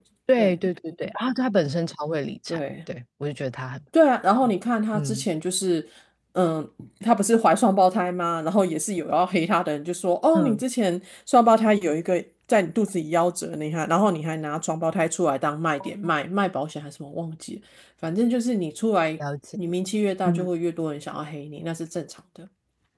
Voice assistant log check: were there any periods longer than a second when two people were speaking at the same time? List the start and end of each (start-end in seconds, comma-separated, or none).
none